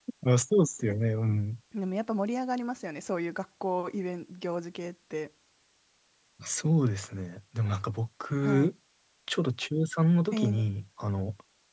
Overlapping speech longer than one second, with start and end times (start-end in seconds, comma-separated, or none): none